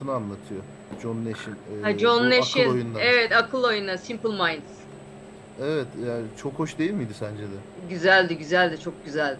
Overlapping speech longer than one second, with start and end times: 1.8-3.1

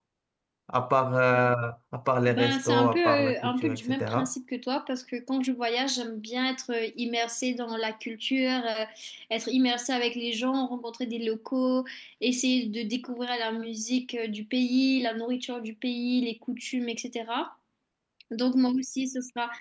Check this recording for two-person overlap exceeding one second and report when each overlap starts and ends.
2.3-4.3

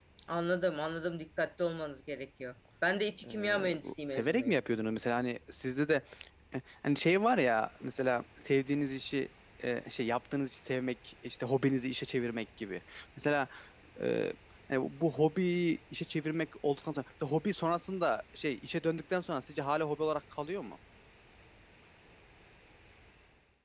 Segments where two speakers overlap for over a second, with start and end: 3.3-4.5

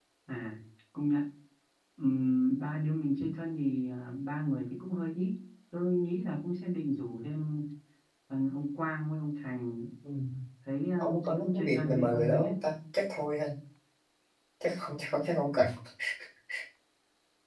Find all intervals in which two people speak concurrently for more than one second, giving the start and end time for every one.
11.0-12.5

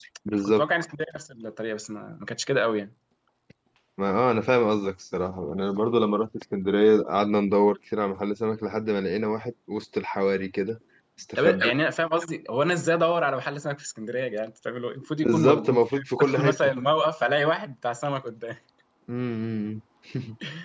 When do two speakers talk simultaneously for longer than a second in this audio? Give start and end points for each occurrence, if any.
15.2-16.7

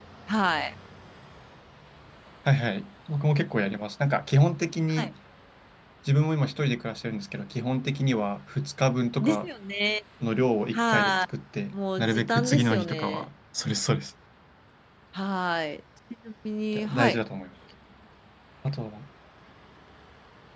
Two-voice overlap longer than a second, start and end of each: 11.7-13.2

